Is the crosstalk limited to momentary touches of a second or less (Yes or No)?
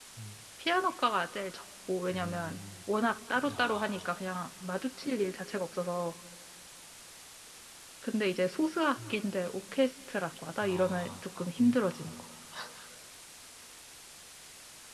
No